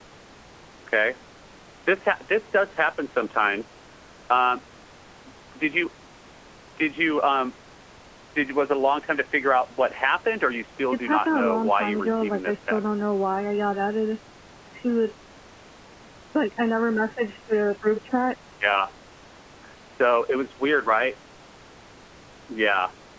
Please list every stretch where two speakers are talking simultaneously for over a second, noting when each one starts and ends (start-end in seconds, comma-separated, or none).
11.1-12.8